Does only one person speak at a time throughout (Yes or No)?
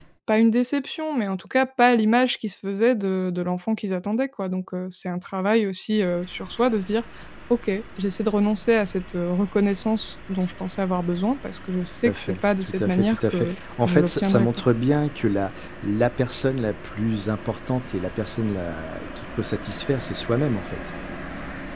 No